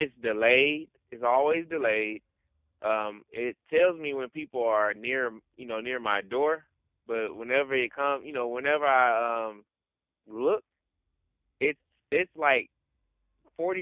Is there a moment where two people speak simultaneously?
No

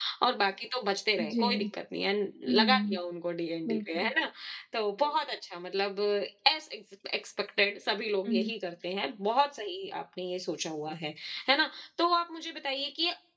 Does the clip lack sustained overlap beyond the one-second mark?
Yes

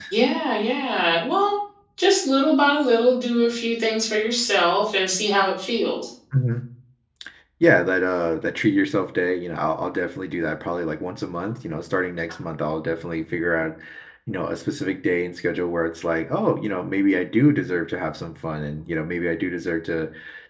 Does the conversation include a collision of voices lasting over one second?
No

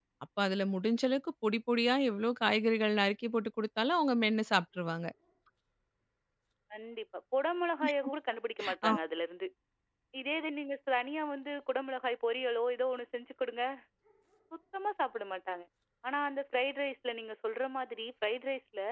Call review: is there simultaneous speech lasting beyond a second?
No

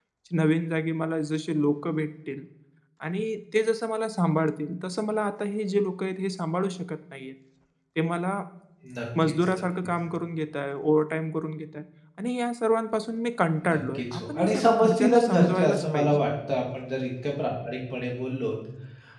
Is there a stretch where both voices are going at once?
Yes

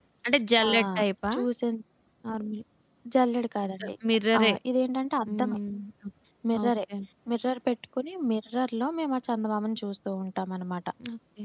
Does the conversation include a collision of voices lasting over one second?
No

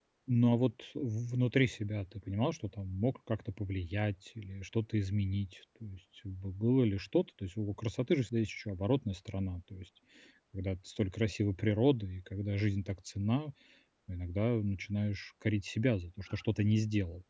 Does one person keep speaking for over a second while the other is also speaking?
No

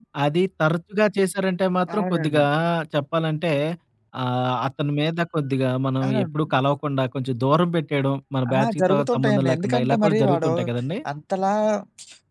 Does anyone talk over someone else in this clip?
Yes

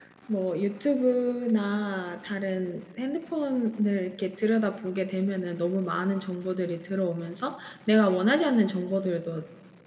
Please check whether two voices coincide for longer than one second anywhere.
No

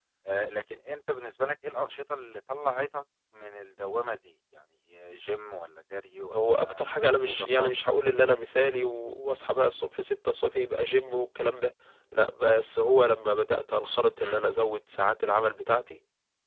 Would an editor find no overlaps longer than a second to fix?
No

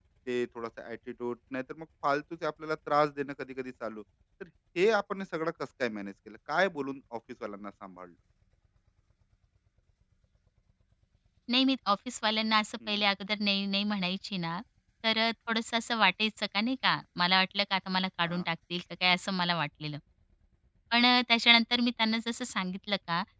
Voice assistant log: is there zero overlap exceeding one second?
Yes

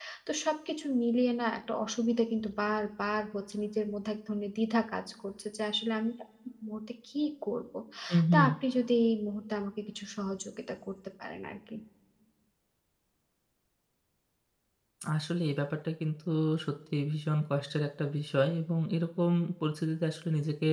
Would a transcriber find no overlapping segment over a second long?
Yes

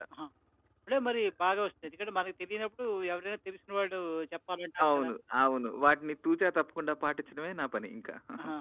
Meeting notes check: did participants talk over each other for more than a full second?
No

